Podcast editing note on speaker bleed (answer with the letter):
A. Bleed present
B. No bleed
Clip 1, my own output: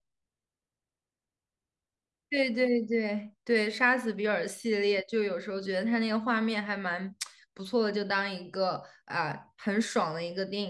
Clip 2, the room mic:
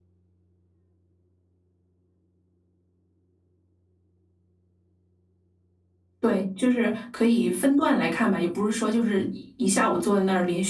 B